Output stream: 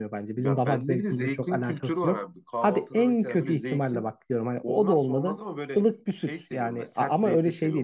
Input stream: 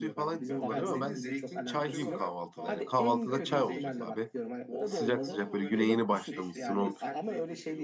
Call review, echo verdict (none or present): present